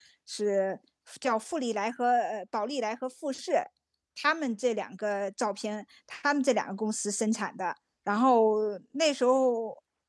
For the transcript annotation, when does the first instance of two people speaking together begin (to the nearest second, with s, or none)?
none